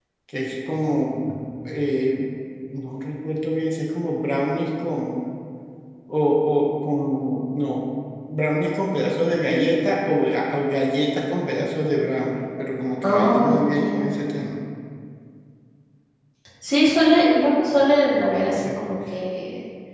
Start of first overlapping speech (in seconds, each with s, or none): 13.0 s